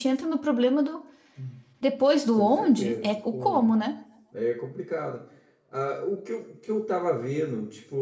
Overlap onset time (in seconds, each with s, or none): 2.4 s